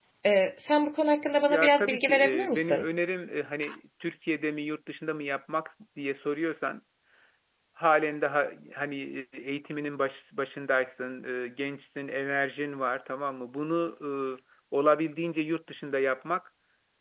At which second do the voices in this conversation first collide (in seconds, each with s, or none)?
1.5 s